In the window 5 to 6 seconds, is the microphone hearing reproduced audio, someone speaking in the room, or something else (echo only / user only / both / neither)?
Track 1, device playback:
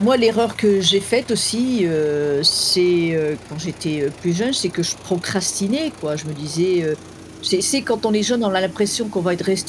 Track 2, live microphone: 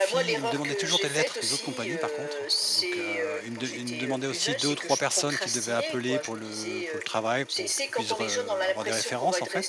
both